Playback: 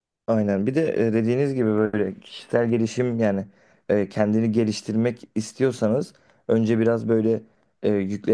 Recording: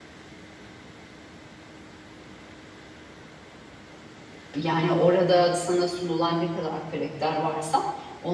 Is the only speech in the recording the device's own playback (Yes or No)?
No